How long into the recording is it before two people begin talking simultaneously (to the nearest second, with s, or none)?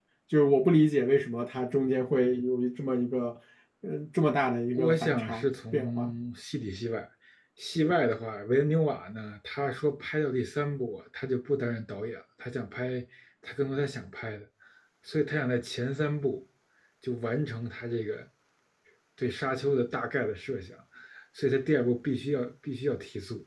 5 s